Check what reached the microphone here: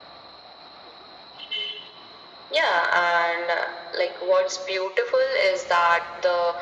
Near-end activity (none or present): none